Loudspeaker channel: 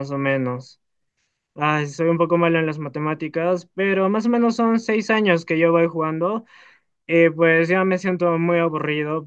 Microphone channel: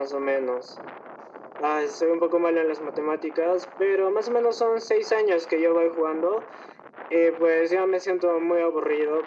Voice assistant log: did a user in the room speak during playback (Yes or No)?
No